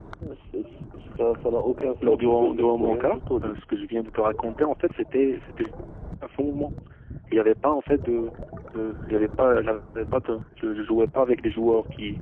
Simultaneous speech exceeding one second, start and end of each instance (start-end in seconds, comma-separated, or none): 2.0-3.5